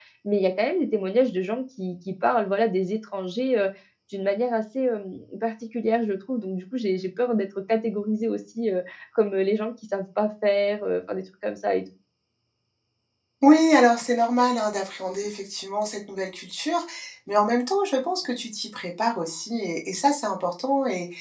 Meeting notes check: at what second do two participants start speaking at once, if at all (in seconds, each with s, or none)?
none